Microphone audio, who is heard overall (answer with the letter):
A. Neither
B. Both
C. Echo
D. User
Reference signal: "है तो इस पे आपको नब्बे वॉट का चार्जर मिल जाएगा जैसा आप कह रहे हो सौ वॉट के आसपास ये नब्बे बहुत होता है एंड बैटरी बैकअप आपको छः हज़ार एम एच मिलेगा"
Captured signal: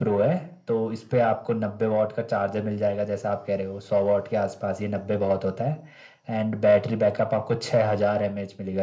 C